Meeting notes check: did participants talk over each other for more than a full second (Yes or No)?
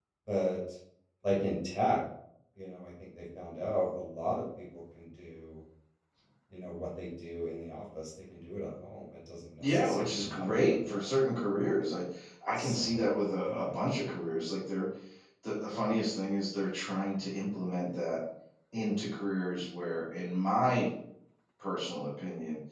Yes